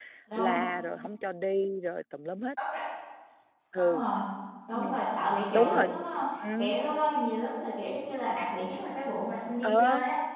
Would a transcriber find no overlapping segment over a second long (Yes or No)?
Yes